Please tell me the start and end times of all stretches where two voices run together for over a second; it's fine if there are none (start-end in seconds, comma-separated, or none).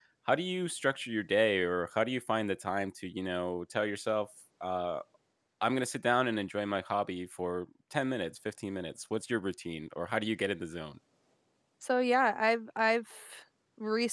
none